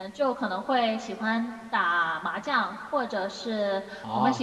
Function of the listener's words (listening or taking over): listening